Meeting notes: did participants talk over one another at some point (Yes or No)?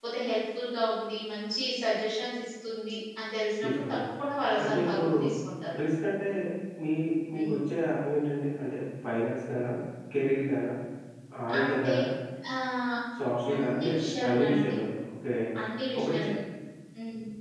Yes